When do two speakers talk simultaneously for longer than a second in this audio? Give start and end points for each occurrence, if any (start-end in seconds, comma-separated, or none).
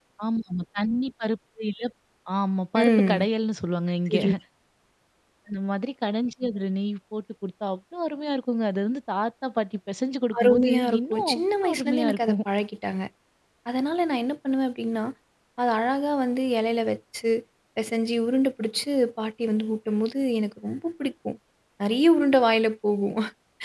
10.4-12.4